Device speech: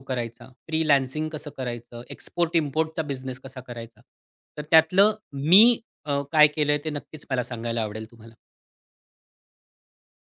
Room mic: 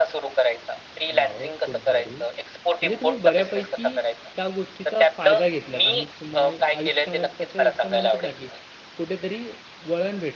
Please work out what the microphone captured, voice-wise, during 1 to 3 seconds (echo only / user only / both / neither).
both